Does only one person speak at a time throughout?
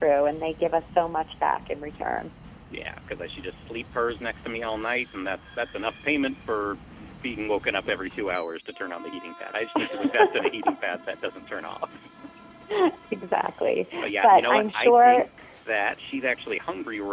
No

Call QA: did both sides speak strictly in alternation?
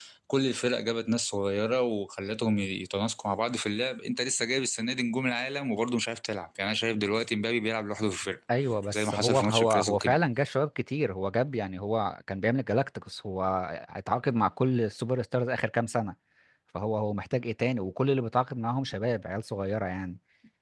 No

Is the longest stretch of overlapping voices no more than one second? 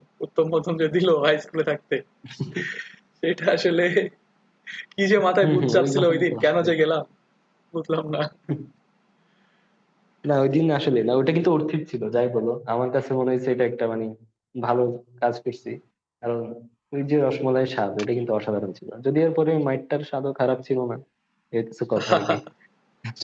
No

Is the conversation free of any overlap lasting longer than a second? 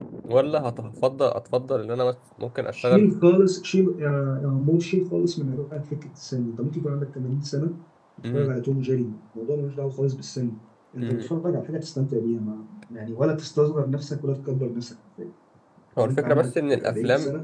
No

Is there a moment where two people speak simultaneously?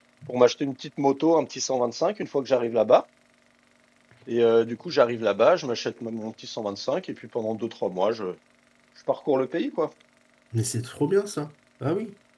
No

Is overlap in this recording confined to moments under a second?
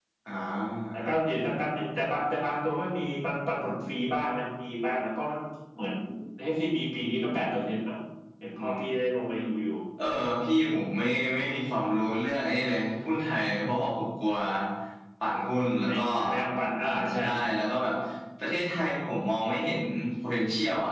Yes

